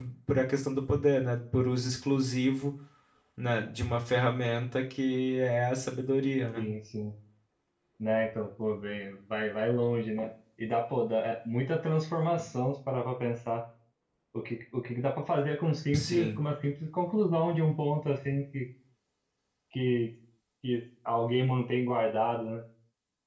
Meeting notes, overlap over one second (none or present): none